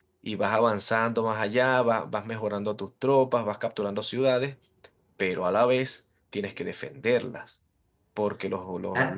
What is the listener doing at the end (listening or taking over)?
listening